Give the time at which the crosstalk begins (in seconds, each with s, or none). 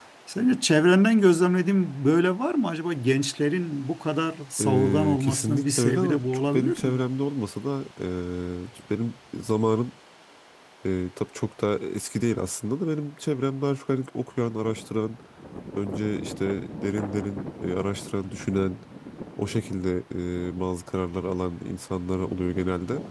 4.6 s